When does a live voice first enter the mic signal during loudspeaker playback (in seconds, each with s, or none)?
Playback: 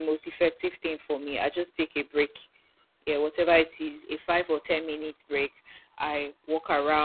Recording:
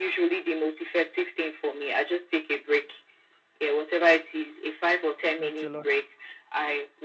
5.4 s